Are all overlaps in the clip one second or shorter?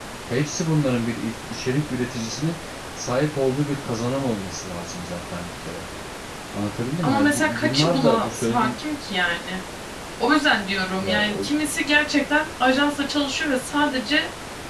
No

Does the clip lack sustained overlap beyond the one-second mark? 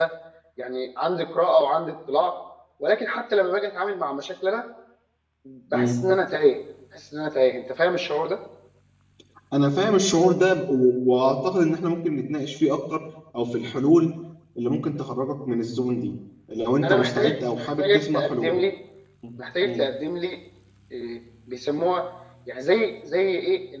No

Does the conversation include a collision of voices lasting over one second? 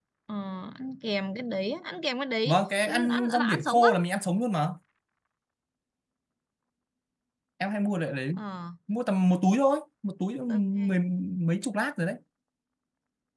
Yes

